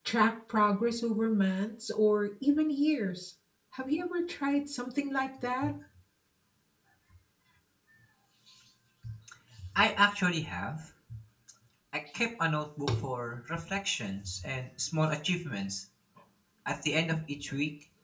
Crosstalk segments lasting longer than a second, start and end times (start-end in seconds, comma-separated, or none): none